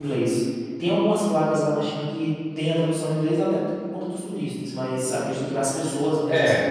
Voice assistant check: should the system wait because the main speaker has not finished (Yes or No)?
No